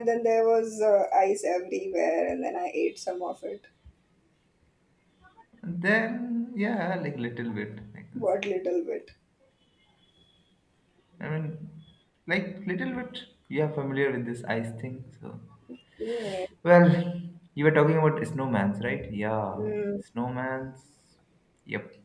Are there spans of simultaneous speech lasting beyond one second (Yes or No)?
No